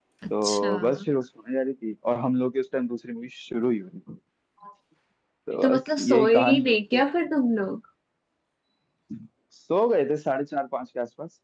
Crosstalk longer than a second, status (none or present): present